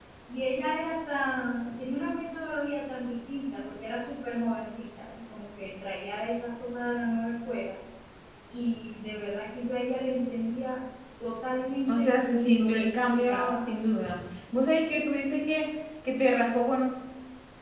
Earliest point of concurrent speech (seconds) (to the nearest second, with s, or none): 12 s